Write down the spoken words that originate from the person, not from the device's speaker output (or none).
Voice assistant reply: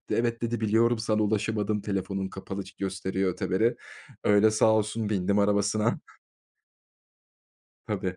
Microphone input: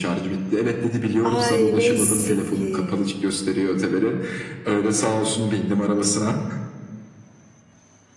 Ay! Neyse ki.